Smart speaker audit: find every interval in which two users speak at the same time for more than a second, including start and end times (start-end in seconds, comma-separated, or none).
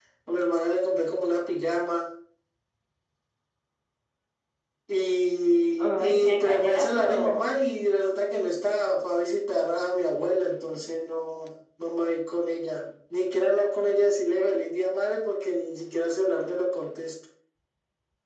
5.8-7.5